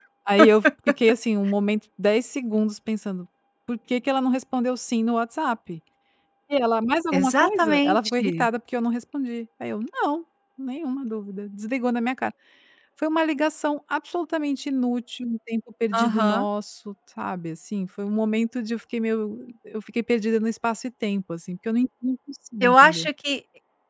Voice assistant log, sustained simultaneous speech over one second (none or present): present